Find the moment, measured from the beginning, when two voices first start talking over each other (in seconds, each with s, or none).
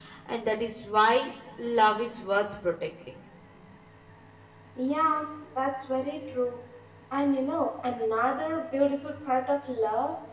none